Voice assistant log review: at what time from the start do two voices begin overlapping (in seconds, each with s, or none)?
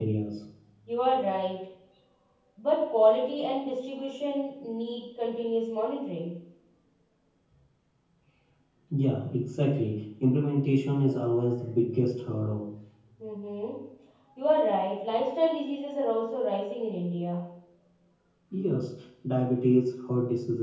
none